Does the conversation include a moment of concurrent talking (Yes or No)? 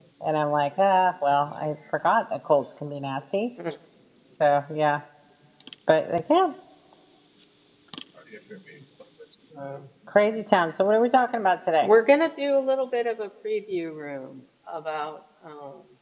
No